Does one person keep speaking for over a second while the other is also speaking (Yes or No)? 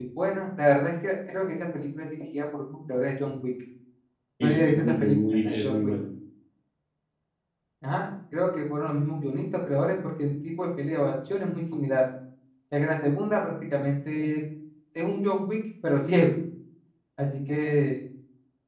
Yes